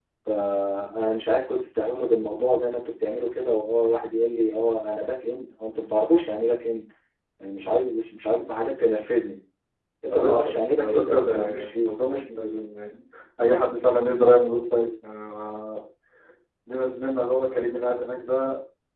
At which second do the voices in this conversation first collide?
10.1 s

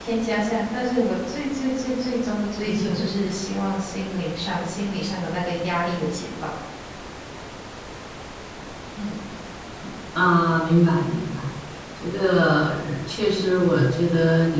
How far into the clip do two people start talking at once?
none

